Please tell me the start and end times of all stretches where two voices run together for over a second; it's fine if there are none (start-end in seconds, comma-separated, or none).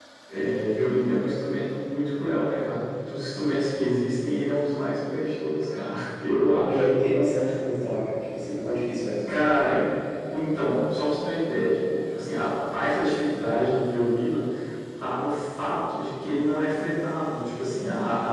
none